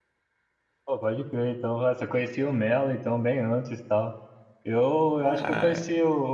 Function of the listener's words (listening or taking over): listening